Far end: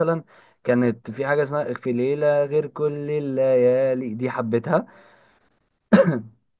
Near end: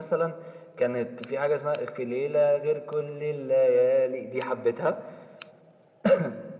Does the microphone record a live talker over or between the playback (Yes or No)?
No